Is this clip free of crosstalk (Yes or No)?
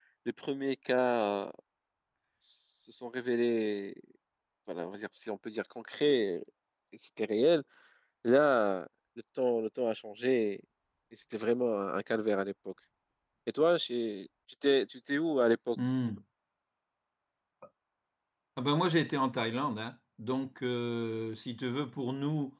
Yes